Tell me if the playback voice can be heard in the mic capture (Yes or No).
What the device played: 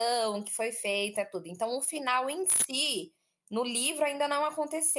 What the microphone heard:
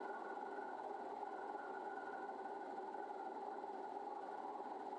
No